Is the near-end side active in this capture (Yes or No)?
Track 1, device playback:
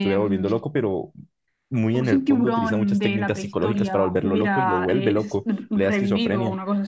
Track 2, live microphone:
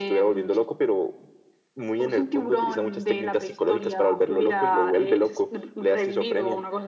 No